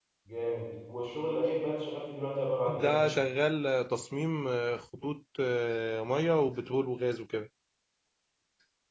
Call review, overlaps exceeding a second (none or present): none